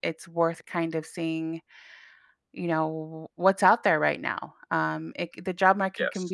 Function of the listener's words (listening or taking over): listening